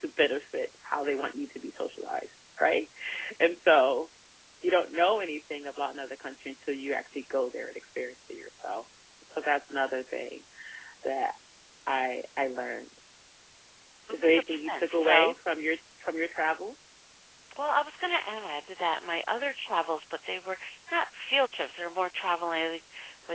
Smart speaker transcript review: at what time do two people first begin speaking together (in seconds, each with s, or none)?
14.1 s